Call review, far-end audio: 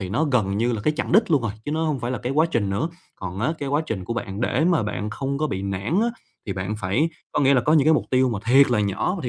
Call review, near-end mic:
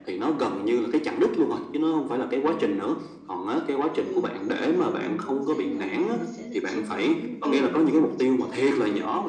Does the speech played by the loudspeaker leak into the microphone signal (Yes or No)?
Yes